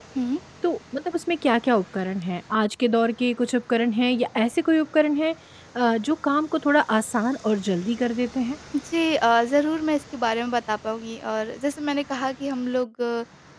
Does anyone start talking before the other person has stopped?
No

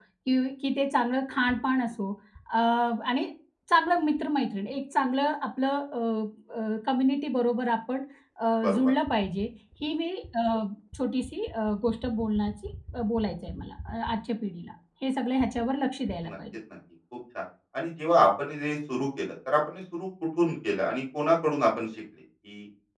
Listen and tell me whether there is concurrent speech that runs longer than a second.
No

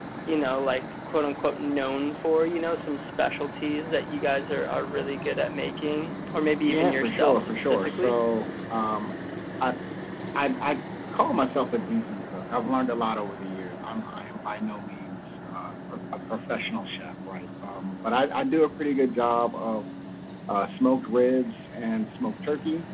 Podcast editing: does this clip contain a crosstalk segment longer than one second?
Yes, from 6.7 s

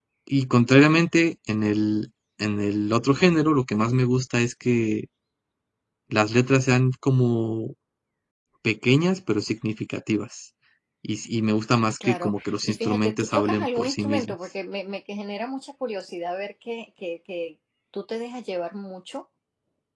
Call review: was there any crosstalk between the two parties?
Yes, from 12.0 s

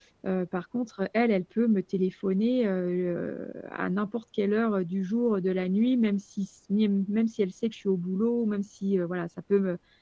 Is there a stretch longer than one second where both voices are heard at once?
No

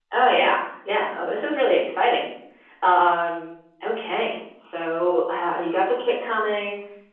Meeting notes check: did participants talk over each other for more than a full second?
No

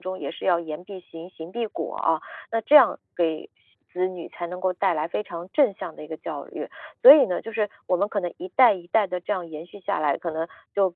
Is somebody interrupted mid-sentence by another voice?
No

